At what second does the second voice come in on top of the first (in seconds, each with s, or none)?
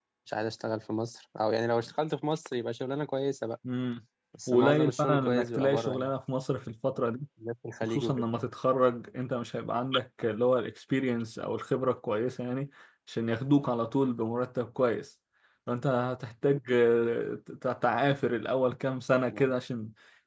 4.5 s